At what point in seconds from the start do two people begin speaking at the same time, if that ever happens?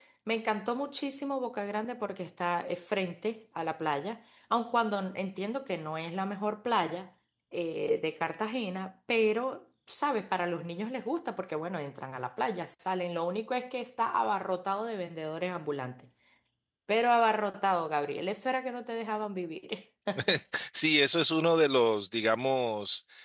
none

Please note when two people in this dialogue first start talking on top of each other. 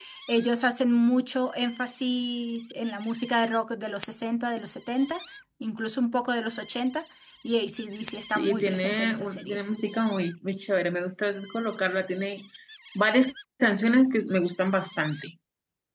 8.3 s

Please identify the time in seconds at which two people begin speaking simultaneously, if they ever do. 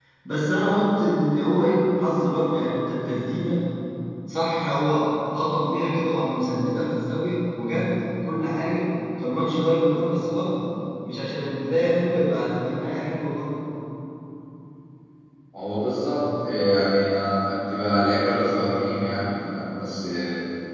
none

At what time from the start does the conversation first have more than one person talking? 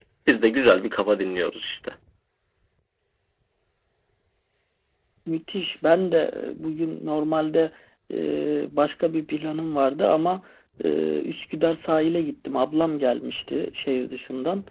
none

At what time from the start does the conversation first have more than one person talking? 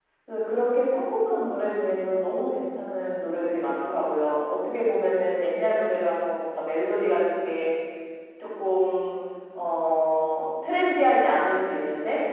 none

